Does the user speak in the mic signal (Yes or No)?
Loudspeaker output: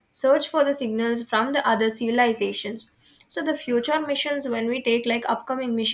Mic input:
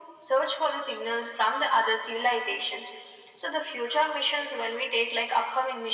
No